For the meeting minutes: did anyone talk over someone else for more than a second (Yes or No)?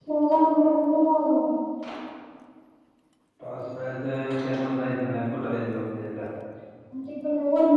No